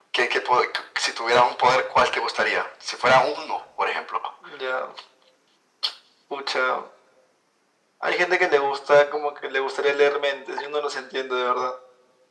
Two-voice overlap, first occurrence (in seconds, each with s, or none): none